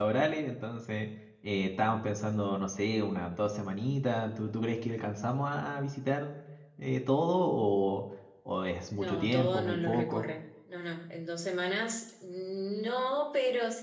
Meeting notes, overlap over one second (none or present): present